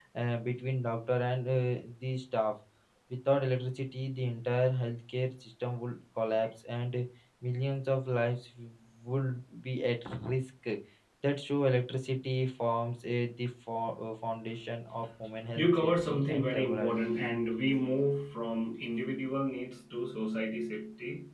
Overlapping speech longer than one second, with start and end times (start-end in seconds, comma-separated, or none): 15.6-16.9